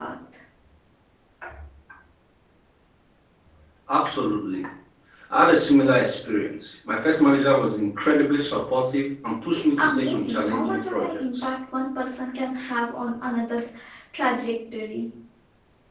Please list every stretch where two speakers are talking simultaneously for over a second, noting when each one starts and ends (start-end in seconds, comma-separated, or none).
9.5-11.4